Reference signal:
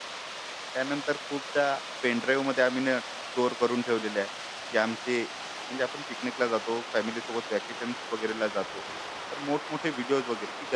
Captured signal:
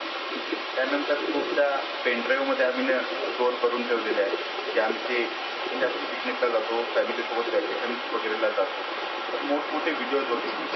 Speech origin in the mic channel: echo only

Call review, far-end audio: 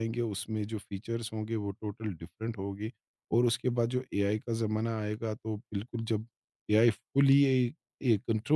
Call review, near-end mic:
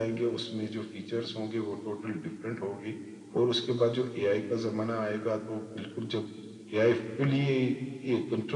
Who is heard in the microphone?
echo only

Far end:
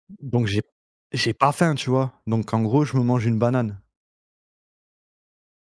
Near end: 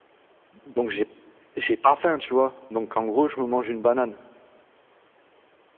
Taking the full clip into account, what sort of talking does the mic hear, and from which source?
echo only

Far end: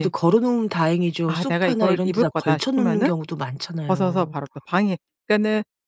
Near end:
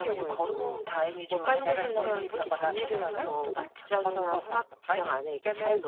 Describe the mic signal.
both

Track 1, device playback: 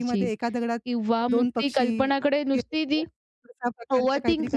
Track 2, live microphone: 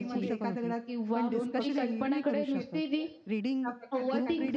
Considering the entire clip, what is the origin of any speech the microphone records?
both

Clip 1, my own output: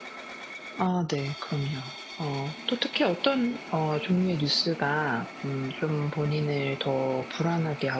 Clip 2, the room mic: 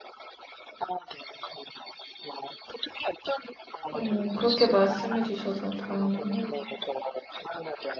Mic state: both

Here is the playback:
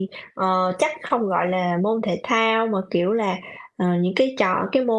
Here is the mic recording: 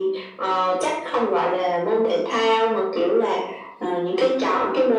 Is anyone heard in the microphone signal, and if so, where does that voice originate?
both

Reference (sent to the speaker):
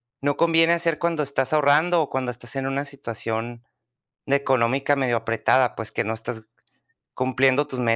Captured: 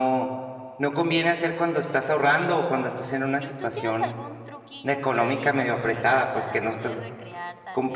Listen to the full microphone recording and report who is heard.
both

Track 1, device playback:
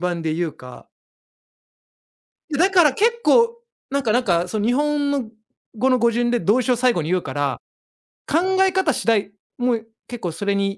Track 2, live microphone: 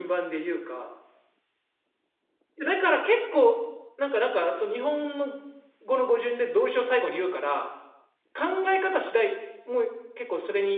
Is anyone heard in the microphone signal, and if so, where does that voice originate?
echo only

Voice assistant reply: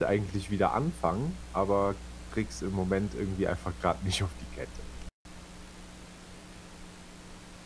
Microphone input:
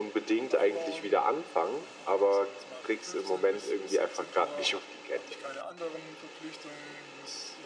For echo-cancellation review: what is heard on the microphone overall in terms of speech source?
both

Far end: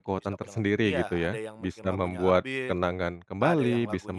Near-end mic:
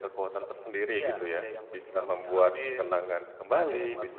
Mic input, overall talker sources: echo only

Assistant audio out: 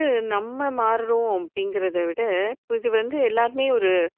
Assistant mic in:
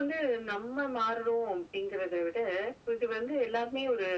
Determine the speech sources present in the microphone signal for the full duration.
echo only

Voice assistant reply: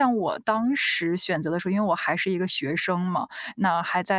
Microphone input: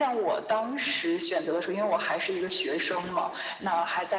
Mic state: echo only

